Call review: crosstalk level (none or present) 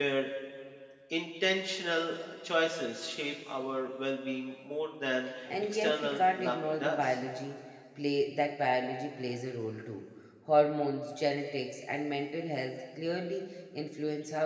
present